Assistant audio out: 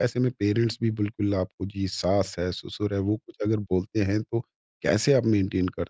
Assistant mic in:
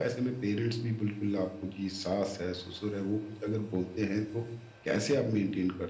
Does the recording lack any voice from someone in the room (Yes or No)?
Yes